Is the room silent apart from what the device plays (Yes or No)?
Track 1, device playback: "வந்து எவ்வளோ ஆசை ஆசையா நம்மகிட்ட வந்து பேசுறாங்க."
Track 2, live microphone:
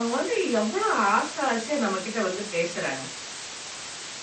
Yes